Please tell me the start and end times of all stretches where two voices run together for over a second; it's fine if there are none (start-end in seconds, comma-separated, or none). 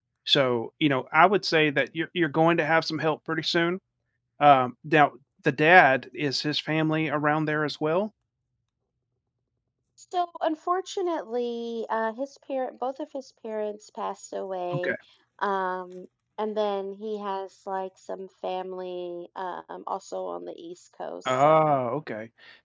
none